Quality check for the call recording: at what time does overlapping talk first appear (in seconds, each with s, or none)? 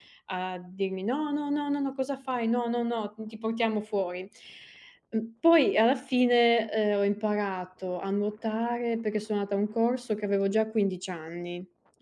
none